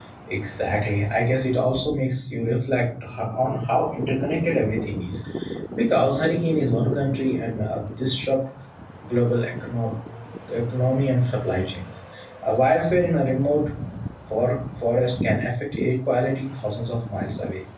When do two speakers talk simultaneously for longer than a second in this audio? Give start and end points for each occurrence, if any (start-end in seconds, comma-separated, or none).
none